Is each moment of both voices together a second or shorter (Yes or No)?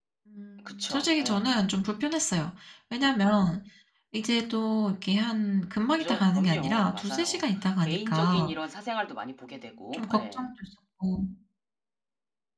No